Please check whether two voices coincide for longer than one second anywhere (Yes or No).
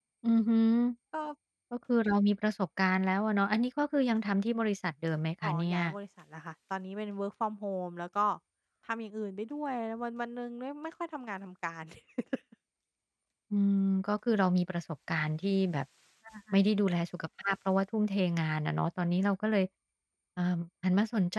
No